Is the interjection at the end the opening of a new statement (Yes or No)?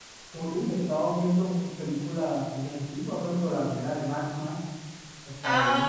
Yes